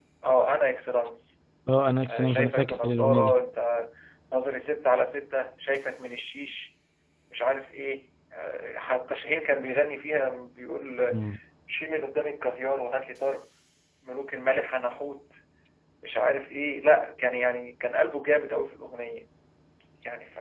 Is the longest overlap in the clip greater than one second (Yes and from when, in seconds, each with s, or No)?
Yes, from 2.0 s